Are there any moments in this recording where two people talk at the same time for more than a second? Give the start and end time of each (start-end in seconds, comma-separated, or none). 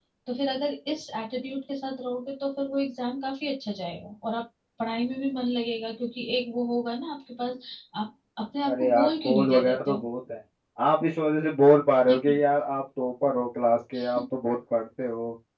8.7-10.0